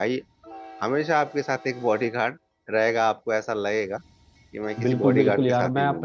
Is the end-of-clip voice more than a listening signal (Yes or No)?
Yes